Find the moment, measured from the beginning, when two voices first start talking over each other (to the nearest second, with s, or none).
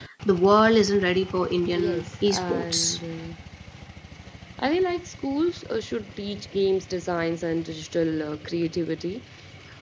2 s